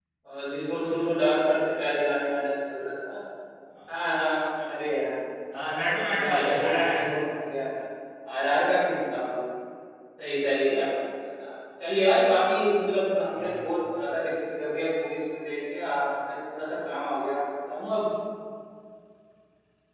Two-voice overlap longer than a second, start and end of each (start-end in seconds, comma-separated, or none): 5.6-7.0